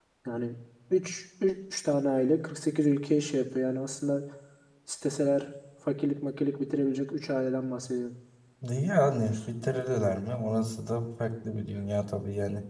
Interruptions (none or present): none